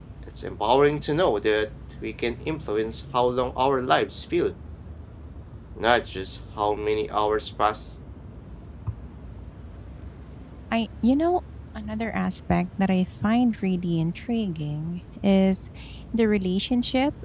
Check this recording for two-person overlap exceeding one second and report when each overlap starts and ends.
none

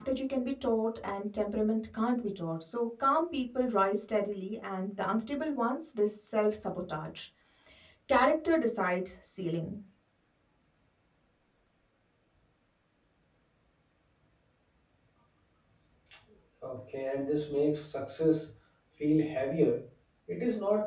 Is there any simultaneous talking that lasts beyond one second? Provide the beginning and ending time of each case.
none

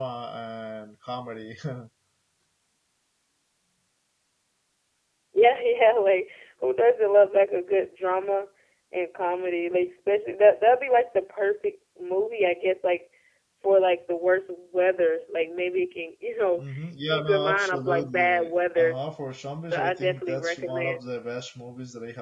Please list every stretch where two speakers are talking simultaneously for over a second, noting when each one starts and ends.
17.1-19.0, 19.6-21.0

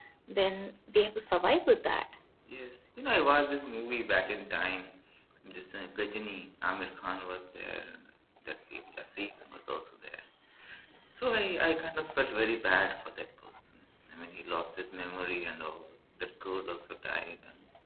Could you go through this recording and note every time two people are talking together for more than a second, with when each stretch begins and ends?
none

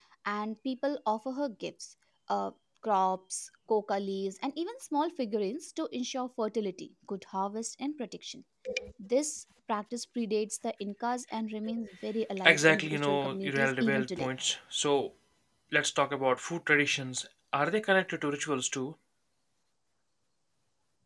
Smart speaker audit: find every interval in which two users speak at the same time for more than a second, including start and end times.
12.4-14.3

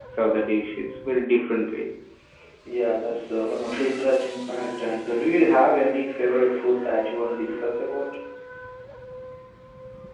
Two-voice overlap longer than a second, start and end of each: none

